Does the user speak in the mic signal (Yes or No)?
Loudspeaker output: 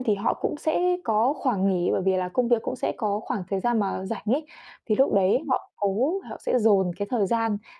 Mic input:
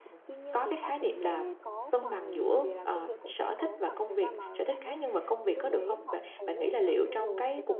Yes